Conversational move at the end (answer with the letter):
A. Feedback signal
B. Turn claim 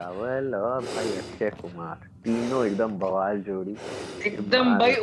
B